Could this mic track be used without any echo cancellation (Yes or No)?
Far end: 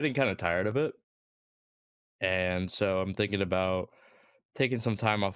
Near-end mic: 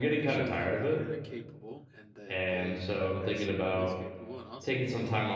No